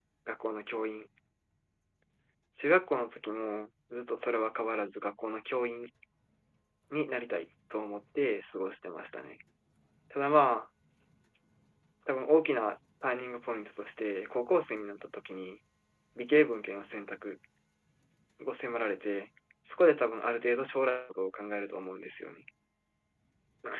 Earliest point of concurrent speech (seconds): none

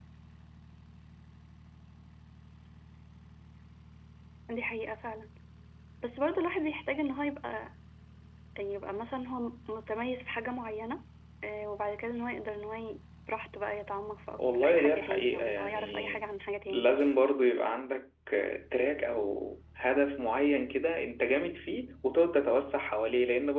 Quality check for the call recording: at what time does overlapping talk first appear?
14 s

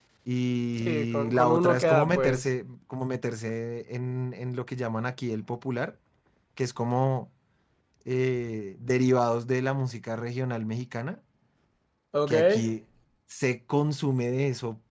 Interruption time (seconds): 1 s

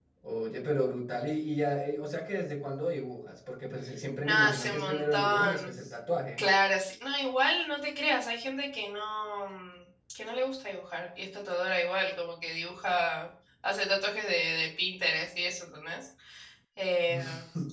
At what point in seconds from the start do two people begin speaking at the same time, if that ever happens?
4 s

